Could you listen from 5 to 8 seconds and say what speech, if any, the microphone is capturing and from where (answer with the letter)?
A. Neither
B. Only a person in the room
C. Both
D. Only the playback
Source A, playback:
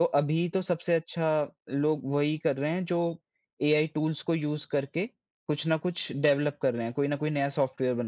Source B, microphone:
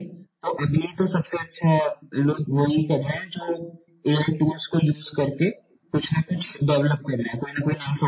D